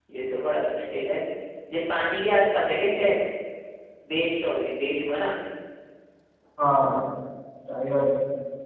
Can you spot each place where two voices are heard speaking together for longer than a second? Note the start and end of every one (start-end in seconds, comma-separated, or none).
none